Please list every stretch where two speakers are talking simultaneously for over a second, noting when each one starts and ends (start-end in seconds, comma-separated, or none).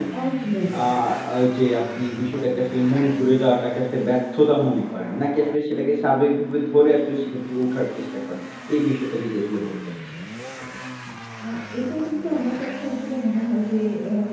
none